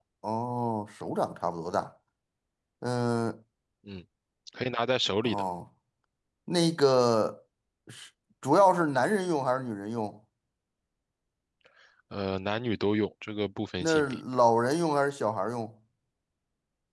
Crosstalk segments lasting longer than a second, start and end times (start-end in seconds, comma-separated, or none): none